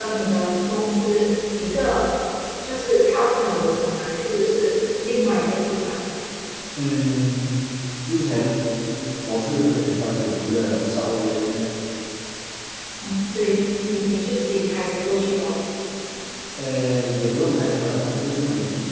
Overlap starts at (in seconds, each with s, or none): none